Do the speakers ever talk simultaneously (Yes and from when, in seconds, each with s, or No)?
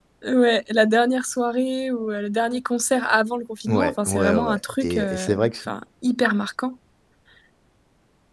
Yes, from 3.7 s